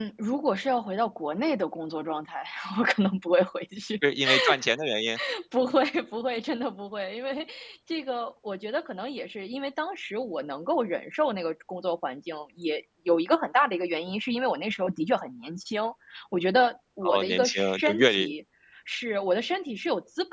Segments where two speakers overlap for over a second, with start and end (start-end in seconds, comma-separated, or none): 17.0-18.3